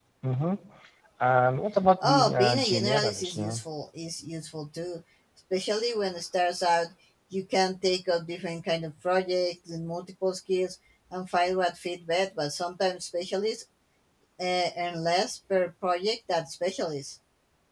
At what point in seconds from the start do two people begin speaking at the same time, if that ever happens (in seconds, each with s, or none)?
2.0 s